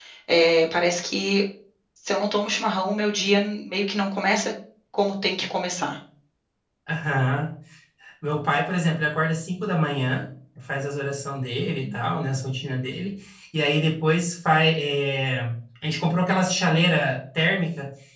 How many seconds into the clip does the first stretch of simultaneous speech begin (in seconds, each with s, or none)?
none